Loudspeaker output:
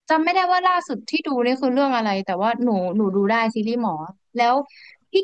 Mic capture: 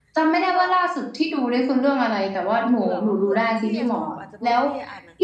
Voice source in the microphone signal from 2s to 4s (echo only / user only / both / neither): both